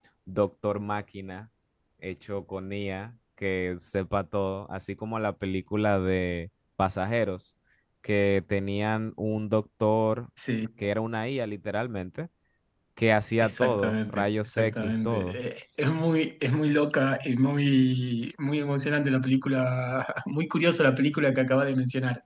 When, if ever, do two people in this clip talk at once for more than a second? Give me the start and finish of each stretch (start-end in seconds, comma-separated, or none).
13.4-15.4